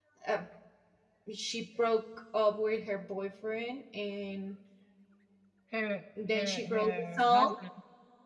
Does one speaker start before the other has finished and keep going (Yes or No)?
Yes